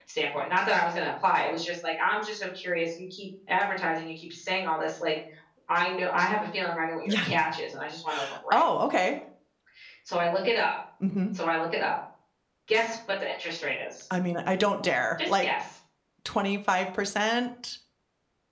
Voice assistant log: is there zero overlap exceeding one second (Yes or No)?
Yes